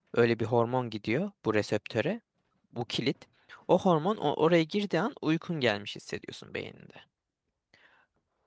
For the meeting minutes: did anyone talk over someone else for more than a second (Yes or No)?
No